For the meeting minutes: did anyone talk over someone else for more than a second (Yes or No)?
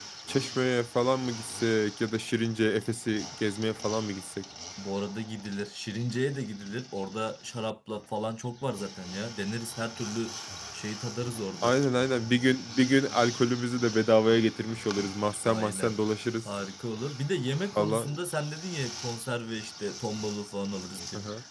No